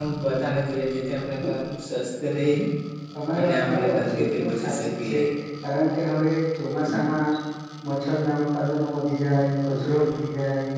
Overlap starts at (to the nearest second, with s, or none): 3 s